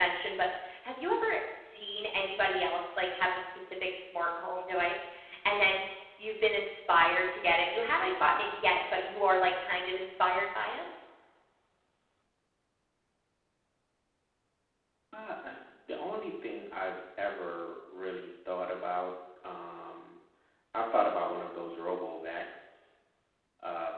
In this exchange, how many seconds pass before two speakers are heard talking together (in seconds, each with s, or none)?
none